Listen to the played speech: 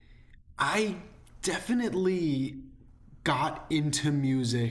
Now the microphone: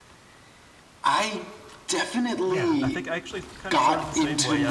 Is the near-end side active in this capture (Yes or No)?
Yes